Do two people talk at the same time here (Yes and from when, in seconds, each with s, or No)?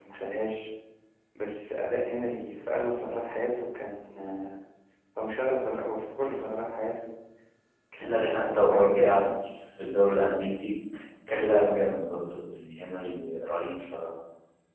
Yes, from 8.0 s